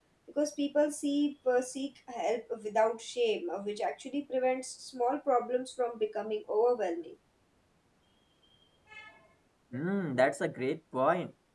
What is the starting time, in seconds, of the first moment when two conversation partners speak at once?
none

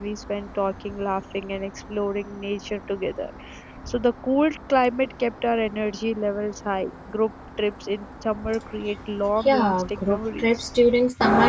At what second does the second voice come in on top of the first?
9.4 s

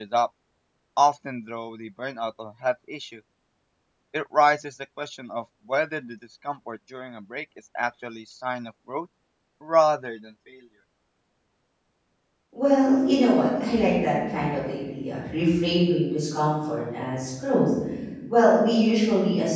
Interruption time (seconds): none

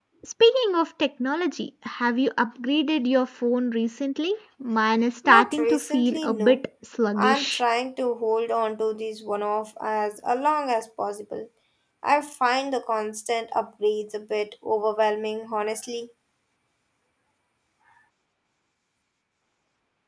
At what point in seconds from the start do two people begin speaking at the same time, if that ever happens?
5.2 s

